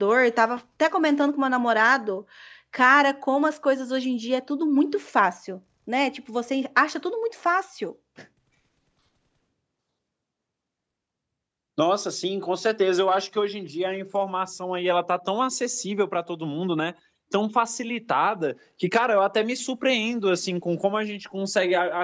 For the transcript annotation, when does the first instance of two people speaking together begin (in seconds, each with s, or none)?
none